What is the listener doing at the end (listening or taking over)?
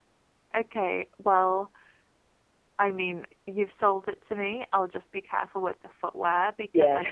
listening